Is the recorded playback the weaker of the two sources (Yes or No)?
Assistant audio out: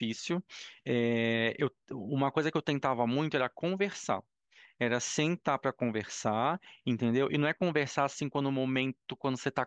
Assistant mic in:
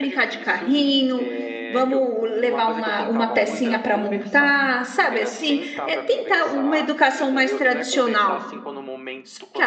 Yes